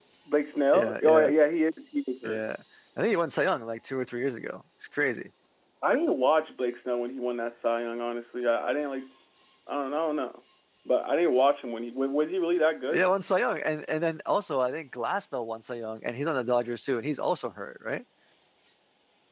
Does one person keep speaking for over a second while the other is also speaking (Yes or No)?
No